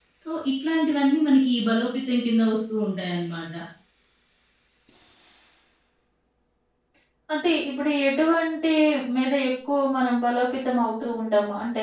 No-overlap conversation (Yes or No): Yes